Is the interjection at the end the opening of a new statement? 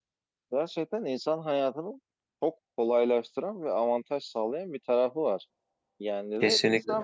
No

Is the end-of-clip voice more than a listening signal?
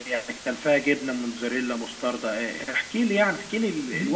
Yes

